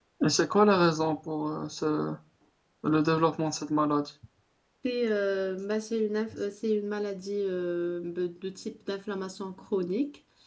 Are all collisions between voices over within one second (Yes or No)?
Yes